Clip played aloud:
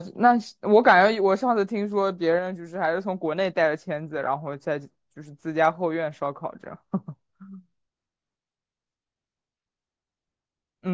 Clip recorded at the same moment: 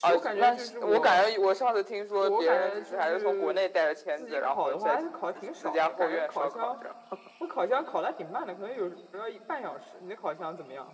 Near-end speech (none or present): present